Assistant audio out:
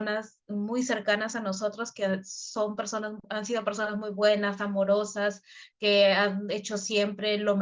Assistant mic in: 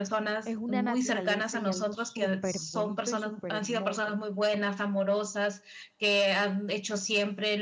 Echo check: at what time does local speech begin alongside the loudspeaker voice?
0.4 s

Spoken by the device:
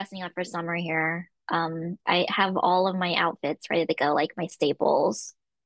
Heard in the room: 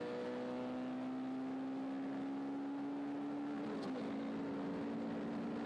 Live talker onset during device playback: none

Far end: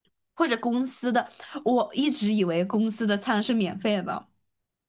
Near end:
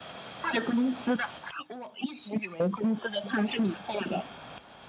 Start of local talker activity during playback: none

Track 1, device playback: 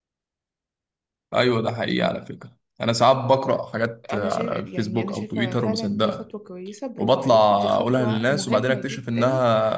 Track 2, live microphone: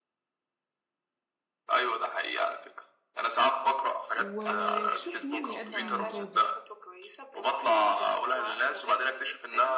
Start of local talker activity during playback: 4.2 s

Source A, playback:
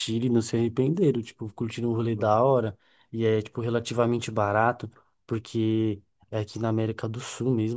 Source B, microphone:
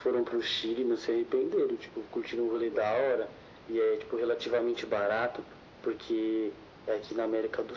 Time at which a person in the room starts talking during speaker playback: none

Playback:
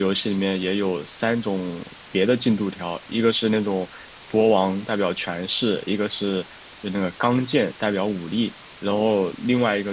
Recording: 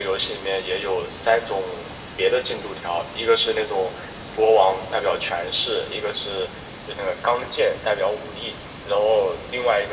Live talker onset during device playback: none

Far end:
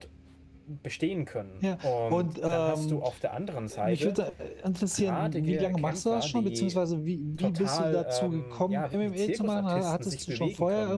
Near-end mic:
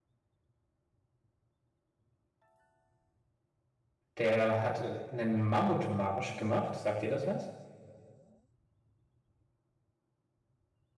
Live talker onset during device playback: 4.2 s

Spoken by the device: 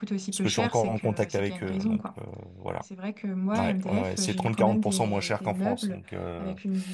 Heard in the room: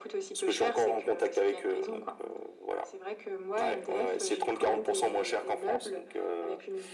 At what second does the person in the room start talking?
none

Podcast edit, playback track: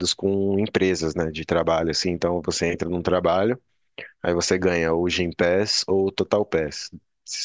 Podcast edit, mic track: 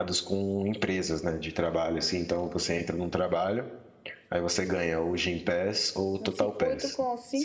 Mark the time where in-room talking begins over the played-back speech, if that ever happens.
6.2 s

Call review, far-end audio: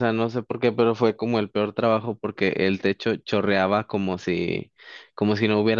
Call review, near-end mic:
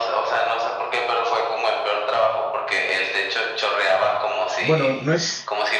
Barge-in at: 4.6 s

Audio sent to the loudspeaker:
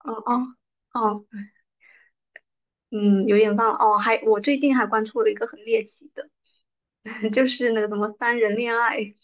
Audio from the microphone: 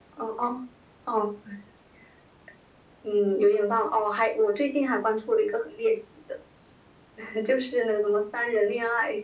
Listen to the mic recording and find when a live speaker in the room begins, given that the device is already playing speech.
none

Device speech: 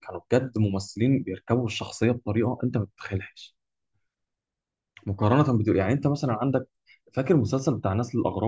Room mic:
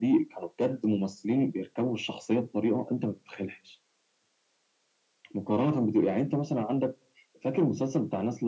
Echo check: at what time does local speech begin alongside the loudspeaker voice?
none

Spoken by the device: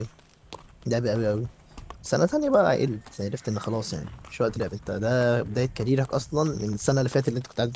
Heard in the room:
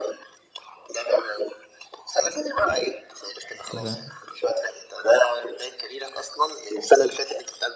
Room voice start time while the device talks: 3.7 s

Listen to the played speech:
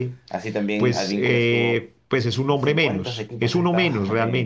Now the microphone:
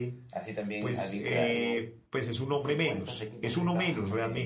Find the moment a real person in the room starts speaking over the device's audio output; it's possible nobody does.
1.3 s

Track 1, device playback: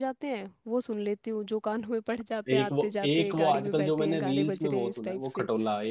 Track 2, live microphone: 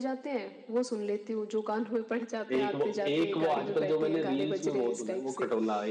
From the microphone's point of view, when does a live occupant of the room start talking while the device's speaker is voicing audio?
none

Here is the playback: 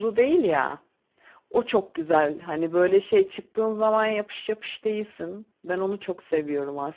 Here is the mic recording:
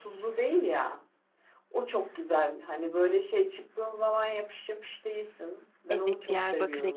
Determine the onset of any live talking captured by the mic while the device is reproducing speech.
5.9 s

